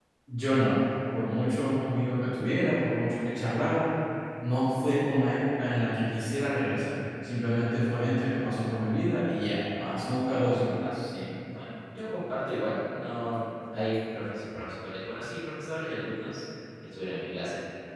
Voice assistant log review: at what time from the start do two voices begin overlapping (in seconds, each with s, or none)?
none